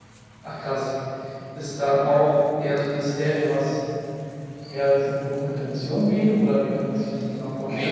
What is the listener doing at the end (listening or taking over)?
taking over